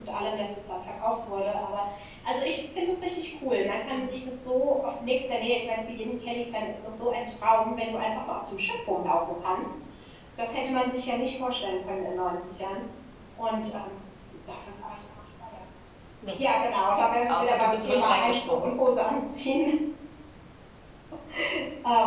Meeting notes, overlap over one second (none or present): present